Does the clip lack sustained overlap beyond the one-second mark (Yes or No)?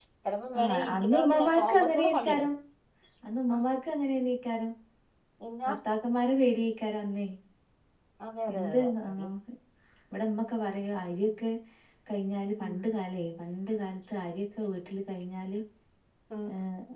No